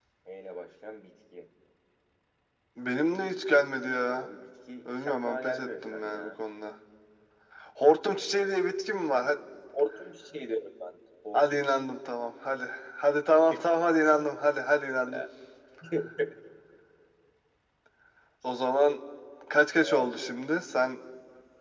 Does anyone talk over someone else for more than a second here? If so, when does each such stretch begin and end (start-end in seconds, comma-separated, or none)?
4.9-6.4